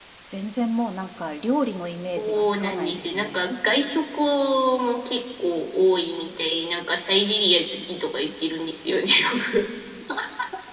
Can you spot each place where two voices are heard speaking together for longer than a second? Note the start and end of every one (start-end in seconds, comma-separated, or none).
2.2-3.4